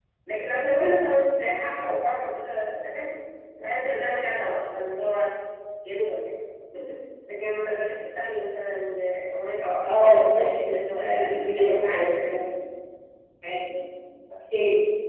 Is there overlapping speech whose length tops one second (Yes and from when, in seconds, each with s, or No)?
Yes, from 9.9 s